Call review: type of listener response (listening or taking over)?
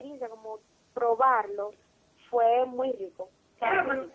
taking over